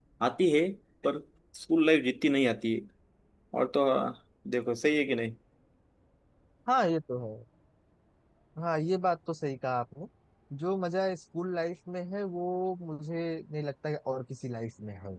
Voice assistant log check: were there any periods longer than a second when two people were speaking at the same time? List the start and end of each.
none

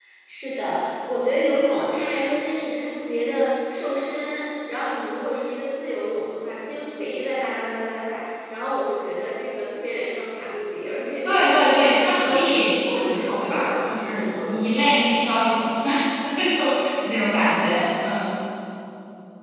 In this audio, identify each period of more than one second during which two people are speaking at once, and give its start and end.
11.2-14.6

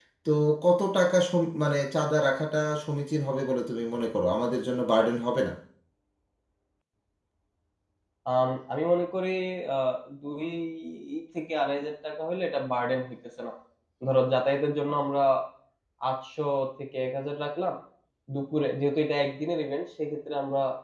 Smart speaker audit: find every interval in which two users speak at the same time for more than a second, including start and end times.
none

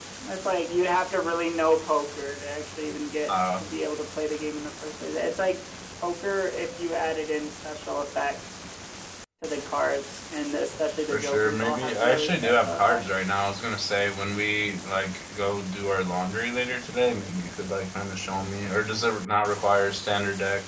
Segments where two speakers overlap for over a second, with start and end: 11.1-13.0

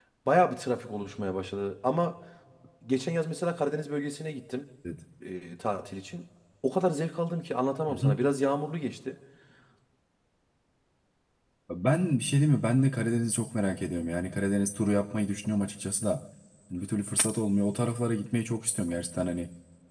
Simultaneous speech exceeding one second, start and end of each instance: none

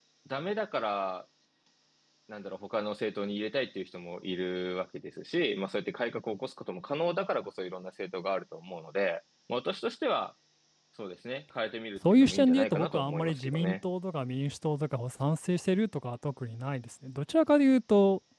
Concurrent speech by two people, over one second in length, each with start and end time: 12.1-13.8

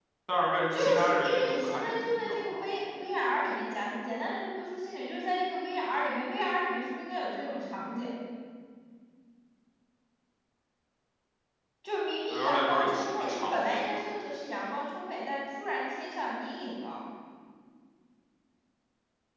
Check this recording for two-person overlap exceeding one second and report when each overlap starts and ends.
0.7-2.7, 12.3-14.0

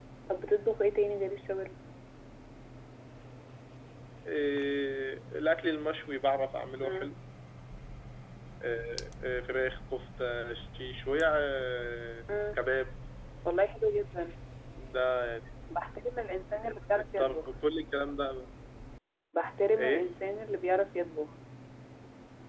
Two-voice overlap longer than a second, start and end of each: none

